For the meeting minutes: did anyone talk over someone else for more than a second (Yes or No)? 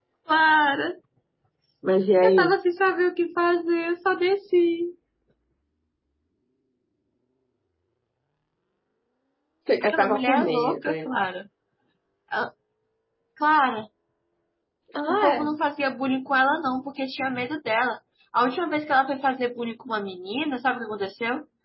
Yes